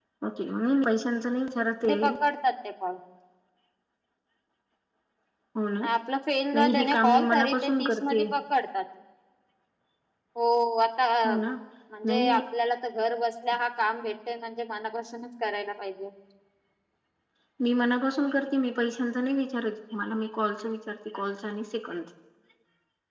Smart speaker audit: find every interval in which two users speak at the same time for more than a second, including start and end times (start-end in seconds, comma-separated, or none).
6.5-8.2